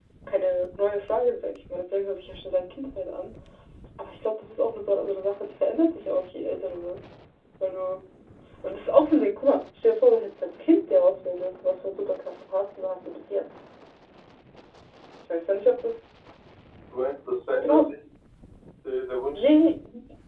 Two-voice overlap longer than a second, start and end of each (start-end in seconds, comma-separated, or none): none